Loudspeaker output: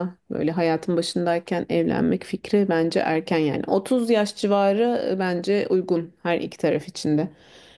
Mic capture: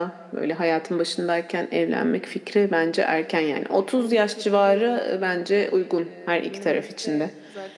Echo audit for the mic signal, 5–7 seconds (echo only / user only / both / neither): both